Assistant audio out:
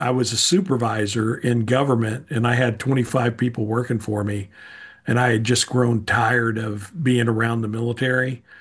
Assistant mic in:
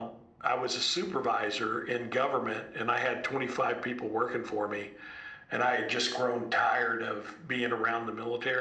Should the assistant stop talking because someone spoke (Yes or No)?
No